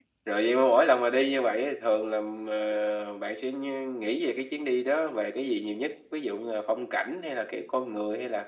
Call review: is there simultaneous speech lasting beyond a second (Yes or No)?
No